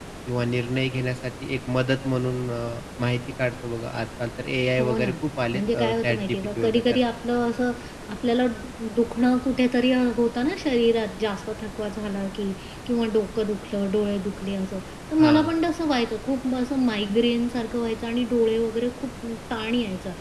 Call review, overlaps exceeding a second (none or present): present